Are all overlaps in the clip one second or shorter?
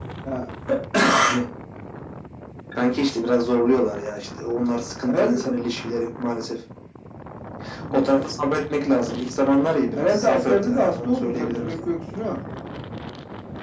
No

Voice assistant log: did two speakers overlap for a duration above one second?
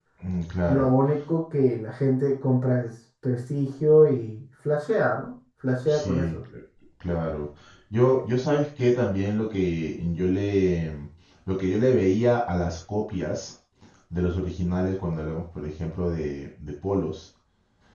No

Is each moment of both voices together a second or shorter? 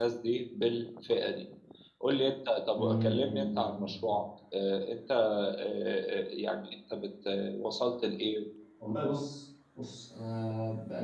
No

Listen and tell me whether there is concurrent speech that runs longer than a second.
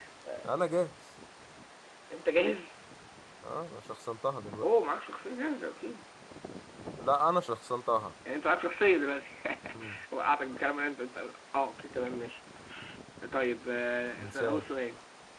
No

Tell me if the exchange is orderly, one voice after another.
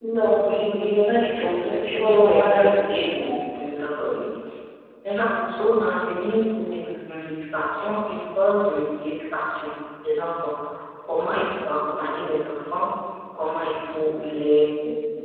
No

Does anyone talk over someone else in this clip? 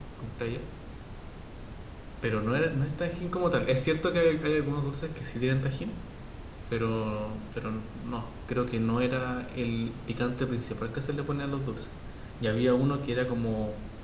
No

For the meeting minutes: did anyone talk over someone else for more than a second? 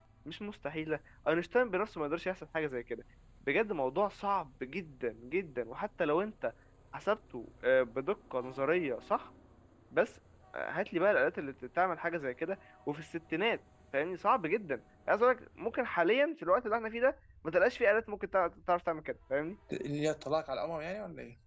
No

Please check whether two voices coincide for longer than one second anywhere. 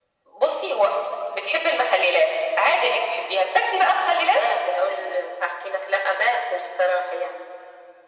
No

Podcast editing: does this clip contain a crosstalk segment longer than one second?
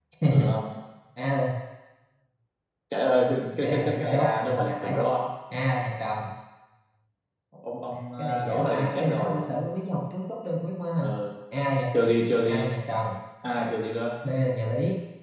Yes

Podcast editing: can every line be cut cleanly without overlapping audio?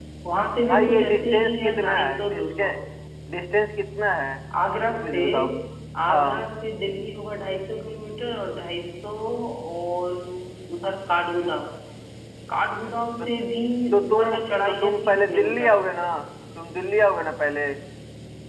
No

